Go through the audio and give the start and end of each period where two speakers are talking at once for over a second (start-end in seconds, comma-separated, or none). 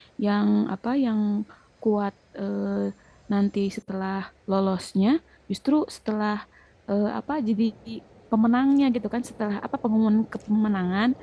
none